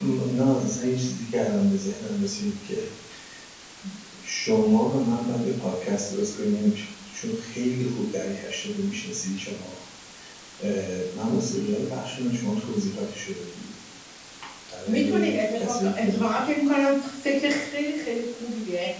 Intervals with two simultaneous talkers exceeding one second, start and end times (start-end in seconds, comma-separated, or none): 14.9-16.4